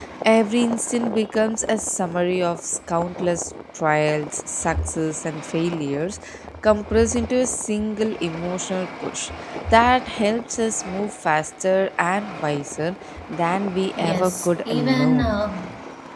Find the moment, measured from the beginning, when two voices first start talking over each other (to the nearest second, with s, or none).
14 s